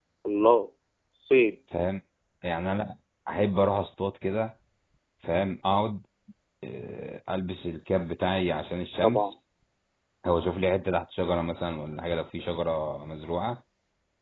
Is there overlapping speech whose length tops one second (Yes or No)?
No